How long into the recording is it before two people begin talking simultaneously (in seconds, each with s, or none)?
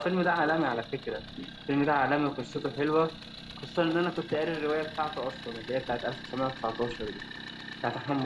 none